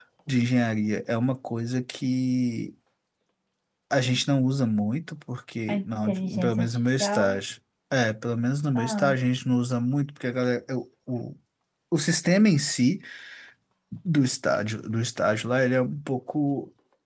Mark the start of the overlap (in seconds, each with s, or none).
5.7 s